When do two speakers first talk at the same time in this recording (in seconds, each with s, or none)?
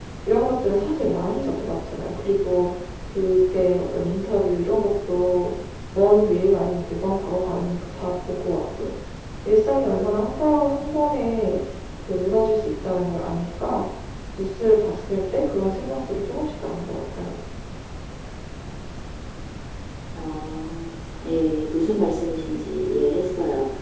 none